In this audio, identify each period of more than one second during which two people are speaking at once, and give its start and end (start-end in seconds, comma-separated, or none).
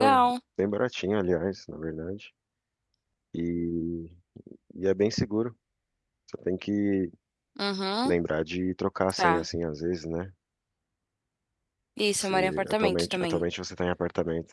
12.2-13.4